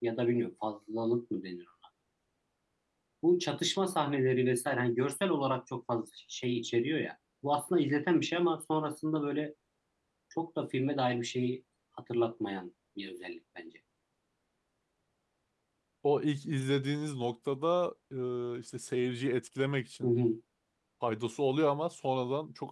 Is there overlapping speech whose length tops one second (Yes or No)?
No